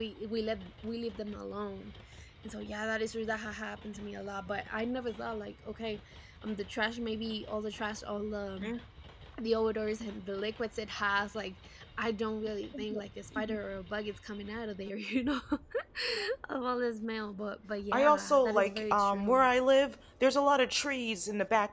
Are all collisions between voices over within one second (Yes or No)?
No